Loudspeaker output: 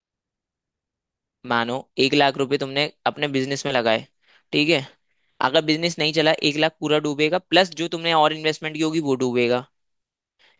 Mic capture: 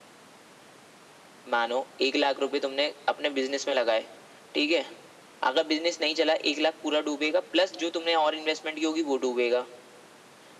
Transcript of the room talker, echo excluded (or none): none